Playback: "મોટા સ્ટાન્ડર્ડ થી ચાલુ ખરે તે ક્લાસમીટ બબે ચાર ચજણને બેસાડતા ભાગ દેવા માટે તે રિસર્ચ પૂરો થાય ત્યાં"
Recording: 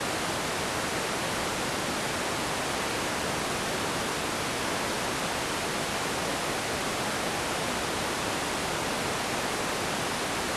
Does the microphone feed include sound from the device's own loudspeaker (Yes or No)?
No